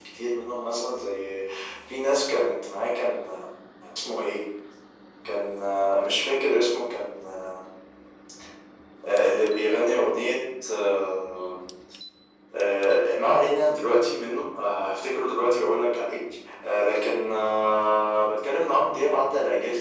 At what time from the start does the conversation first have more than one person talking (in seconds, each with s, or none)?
none